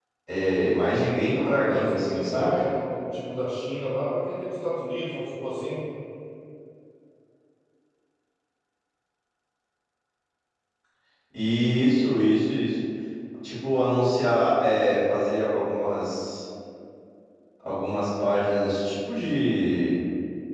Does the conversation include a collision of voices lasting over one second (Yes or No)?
Yes